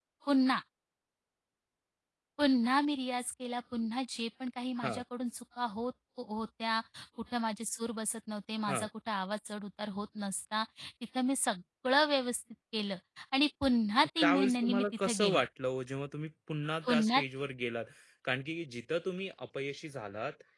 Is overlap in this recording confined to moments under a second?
No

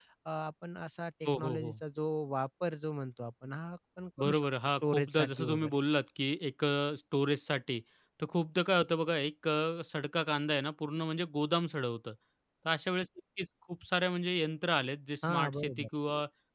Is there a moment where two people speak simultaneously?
Yes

